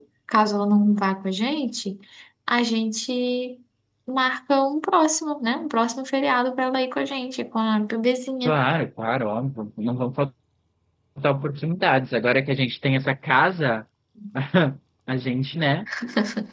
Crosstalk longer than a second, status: none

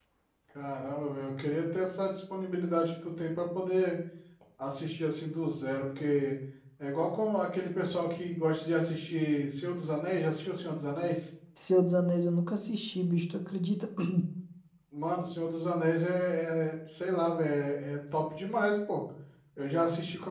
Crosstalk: none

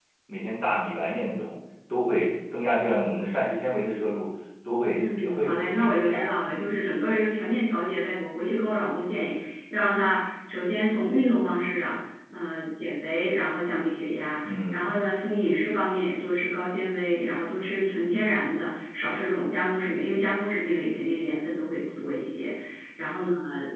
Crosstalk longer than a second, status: present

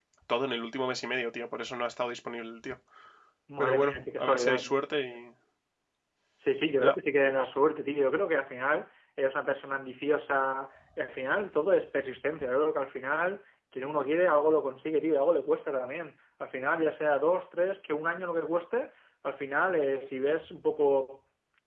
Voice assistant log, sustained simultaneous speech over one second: present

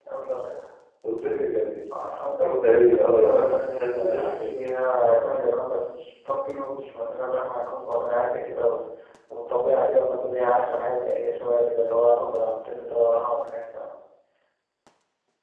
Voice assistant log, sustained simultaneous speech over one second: present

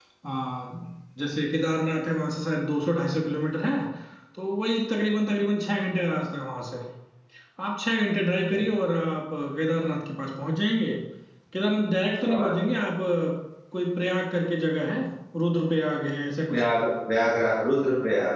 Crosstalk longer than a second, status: none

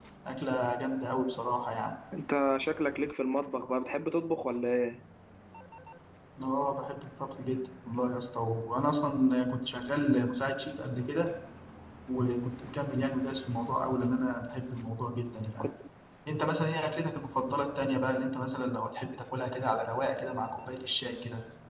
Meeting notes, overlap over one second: none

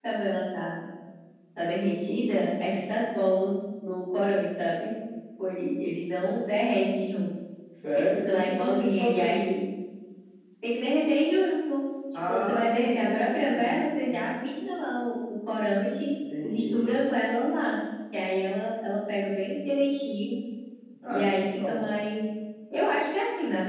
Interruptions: present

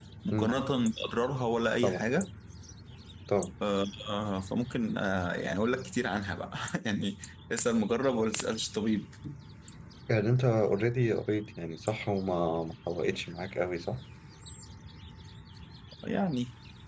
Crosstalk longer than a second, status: none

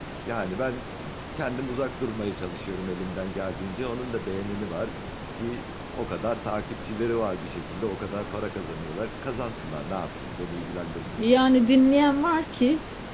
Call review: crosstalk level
none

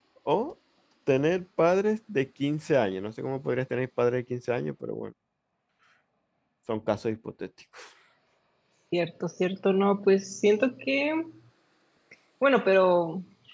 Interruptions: none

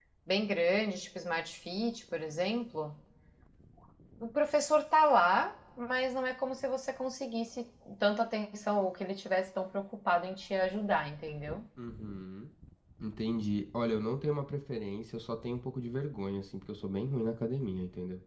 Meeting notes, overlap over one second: none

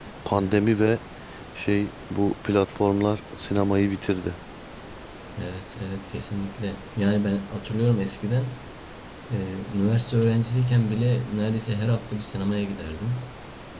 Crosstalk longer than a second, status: none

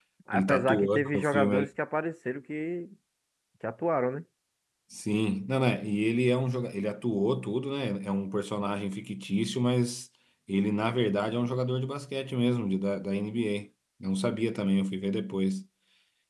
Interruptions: present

